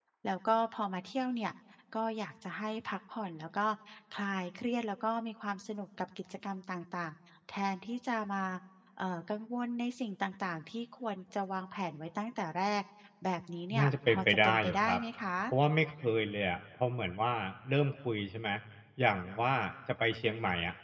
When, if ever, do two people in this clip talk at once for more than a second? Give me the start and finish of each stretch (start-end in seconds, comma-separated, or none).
13.8-15.0